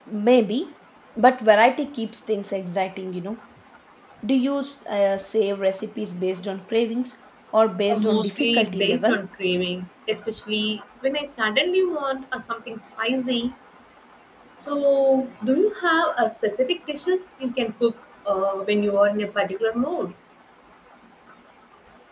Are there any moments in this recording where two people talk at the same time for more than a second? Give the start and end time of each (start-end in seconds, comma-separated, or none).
7.9-9.2